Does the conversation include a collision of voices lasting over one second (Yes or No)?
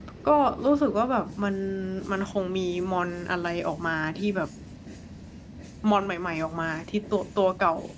No